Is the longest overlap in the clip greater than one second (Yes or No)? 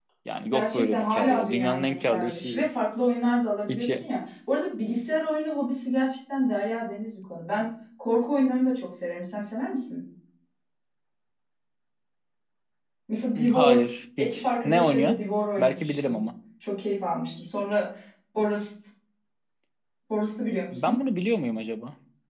Yes